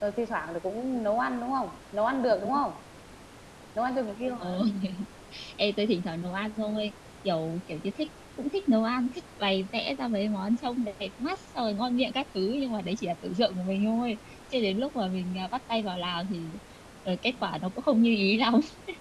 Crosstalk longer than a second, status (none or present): none